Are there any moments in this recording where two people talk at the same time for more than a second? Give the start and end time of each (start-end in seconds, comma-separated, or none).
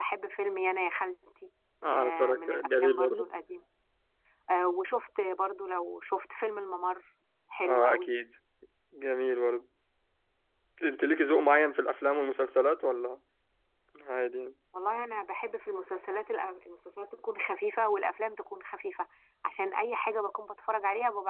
1.9-3.3